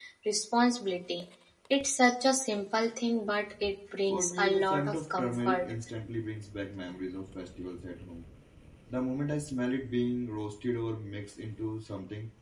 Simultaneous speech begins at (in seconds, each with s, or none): 4.1 s